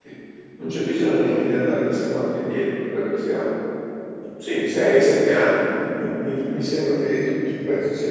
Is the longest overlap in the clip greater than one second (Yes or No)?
No